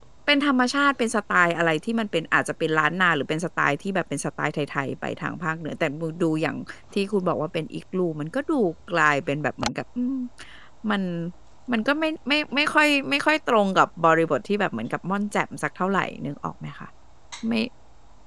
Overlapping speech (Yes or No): No